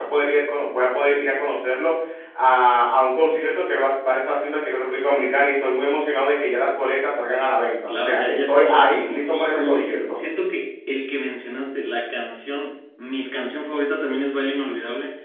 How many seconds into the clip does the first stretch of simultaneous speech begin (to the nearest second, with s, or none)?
8 s